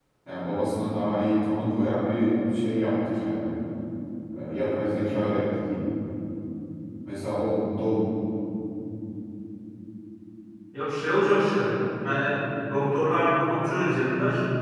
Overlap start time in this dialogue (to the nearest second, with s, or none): none